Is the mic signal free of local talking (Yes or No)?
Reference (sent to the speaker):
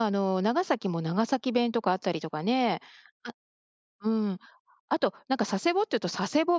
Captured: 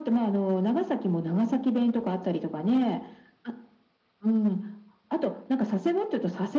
Yes